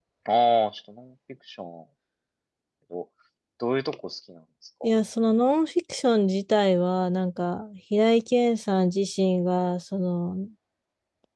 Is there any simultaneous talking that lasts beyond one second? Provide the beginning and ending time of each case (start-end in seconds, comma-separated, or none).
none